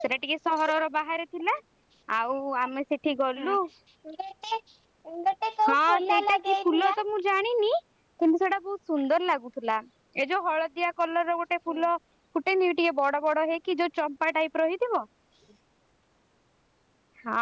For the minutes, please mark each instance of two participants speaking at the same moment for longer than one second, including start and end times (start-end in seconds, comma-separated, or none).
5.7-6.9